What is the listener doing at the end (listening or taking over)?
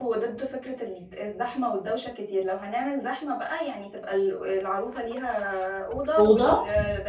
listening